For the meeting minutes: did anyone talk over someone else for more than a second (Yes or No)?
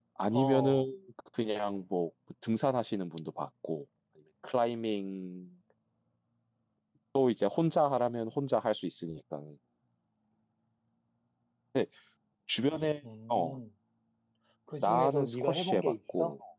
Yes